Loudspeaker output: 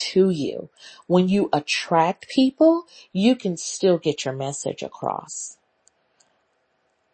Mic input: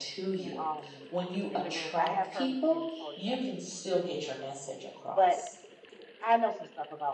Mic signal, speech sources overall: both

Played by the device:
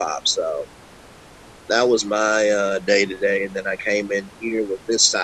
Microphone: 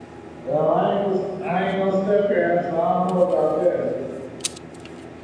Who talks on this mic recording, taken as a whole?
user only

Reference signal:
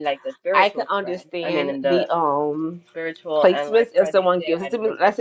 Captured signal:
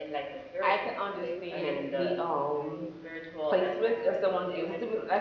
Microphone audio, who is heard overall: both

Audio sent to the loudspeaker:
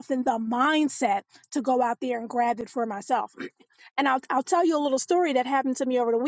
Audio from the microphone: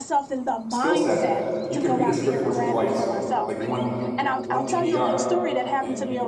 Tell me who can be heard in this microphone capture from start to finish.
both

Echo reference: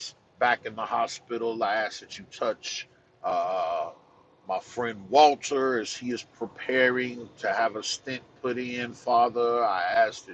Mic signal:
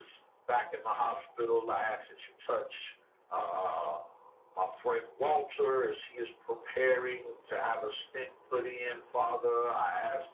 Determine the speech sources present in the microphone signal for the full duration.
echo only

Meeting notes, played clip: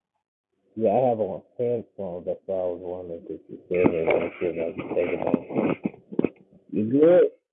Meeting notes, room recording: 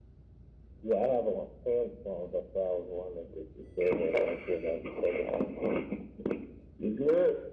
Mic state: echo only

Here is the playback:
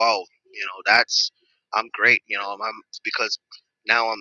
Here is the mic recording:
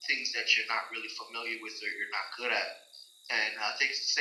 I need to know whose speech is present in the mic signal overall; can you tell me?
user only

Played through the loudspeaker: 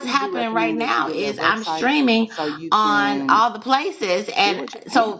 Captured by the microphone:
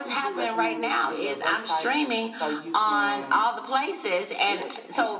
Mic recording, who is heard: echo only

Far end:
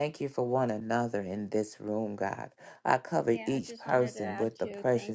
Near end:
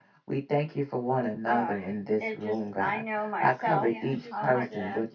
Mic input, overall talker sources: both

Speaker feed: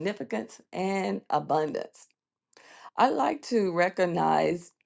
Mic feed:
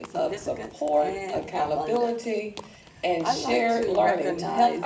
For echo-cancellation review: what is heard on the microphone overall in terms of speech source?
both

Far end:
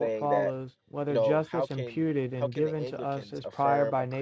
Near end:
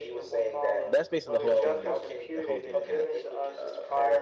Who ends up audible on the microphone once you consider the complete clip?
both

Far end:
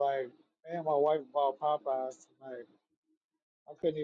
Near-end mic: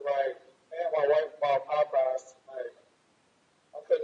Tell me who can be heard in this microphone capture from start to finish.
echo only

